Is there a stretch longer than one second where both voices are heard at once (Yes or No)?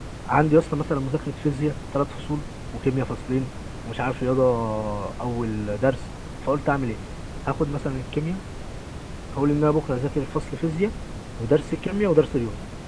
No